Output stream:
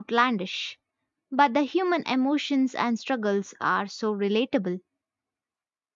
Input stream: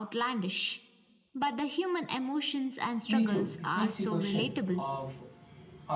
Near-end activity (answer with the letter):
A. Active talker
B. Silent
A